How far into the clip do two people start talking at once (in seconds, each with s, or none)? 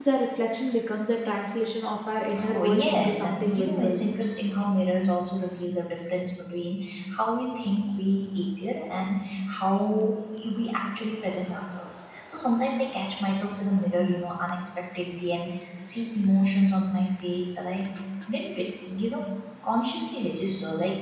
2.4 s